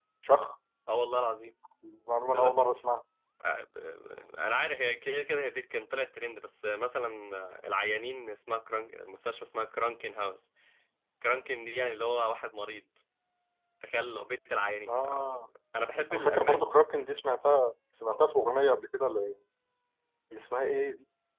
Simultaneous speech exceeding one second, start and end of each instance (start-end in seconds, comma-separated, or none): none